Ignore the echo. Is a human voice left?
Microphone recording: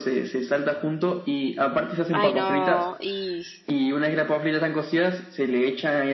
Yes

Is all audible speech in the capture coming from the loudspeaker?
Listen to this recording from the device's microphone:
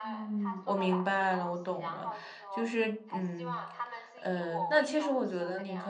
No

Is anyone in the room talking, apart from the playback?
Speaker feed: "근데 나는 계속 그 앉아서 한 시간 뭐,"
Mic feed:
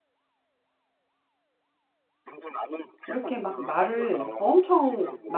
Yes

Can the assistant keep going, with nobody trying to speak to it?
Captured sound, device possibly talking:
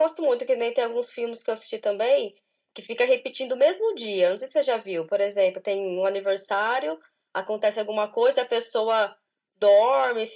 Yes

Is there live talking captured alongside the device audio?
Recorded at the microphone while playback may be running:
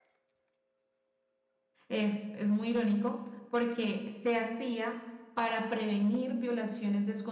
Yes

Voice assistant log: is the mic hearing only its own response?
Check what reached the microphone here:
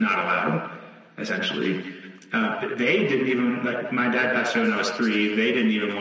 Yes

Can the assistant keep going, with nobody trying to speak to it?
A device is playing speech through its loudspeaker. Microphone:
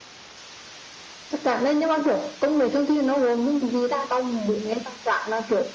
Yes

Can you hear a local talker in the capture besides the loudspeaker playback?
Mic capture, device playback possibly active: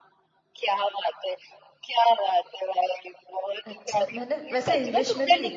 Yes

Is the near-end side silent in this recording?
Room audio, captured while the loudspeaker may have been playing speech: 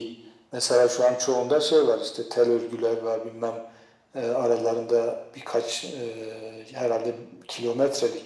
Yes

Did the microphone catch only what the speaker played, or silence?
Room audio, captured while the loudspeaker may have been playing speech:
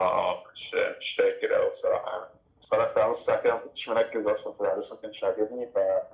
Yes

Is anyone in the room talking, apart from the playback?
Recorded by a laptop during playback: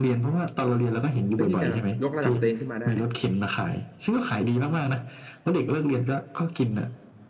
Yes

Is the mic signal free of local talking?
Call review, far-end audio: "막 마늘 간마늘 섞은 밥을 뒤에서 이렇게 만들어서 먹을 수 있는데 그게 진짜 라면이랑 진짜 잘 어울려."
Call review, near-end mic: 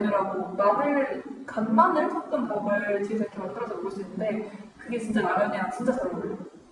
Yes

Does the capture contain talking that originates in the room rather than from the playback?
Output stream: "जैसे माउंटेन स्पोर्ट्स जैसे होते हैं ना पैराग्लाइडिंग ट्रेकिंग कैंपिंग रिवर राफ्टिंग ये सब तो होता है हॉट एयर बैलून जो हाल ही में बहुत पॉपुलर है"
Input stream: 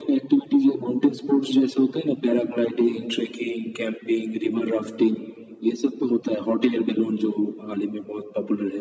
No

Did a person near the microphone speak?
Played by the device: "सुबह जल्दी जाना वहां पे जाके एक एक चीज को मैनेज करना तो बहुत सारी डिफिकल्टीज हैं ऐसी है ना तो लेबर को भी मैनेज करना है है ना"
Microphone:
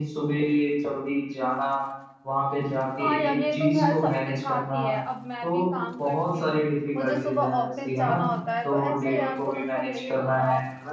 Yes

